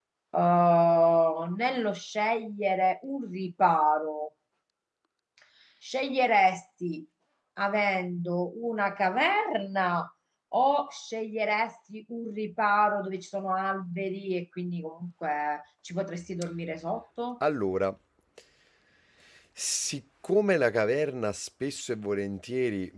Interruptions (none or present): none